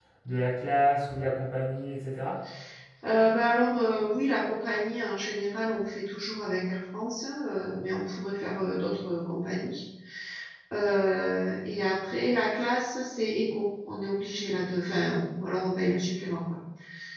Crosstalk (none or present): none